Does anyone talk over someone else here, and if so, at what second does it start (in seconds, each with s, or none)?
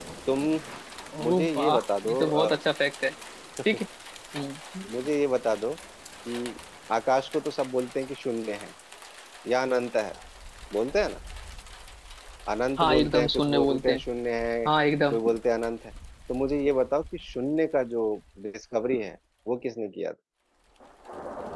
1.3 s